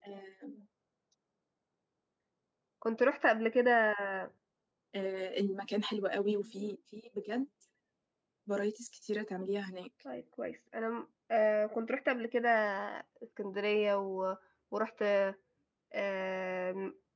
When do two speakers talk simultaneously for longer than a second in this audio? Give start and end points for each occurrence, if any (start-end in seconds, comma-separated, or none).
none